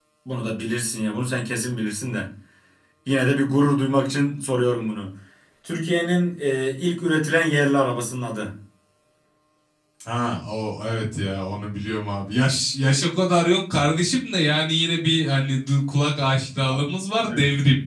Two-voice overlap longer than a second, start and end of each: none

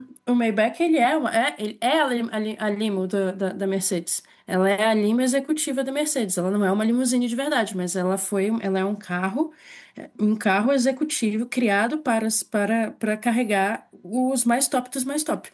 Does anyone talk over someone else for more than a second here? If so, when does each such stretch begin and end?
none

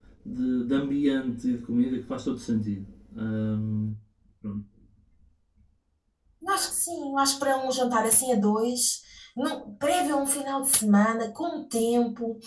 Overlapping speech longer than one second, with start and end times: none

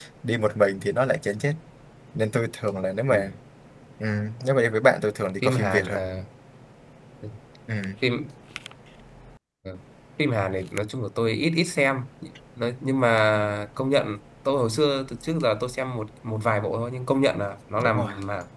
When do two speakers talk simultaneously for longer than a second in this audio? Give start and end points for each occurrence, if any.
none

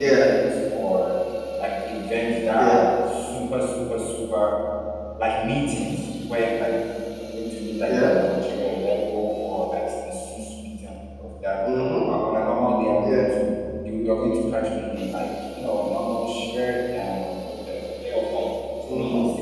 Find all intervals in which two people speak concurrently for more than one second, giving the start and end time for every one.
none

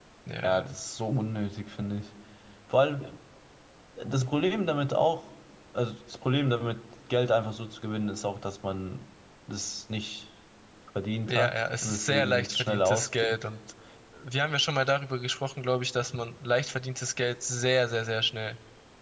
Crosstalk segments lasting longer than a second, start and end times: 11.3-13.4

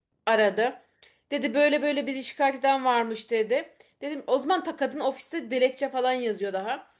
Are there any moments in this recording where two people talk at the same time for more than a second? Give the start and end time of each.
none

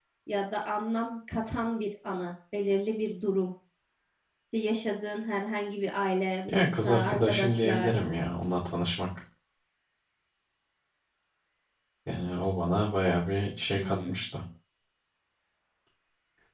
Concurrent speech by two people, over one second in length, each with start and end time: 6.5-8.0

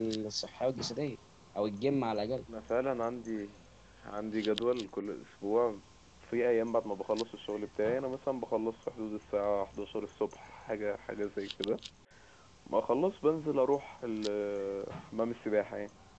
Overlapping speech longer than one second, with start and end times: none

